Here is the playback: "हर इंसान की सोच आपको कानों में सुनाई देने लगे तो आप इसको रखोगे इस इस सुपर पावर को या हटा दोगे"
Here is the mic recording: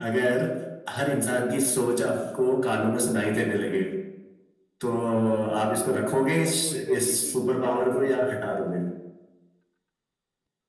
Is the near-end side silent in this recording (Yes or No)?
No